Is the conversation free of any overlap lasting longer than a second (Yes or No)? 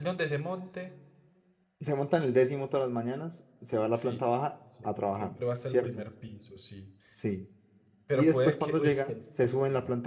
No